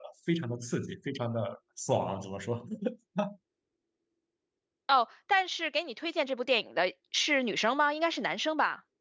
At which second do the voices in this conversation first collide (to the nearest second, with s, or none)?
none